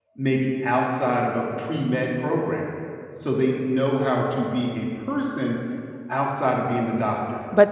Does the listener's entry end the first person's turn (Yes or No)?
Yes